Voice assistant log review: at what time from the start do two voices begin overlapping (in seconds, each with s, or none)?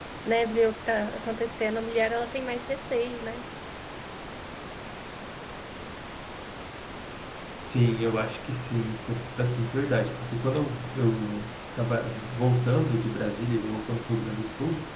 none